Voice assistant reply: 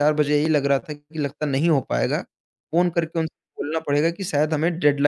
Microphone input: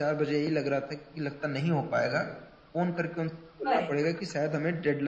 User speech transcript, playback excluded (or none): करेक्ट